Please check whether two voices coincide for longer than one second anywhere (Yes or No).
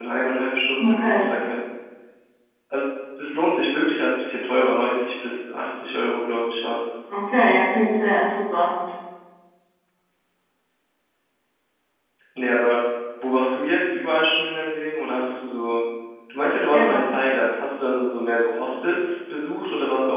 No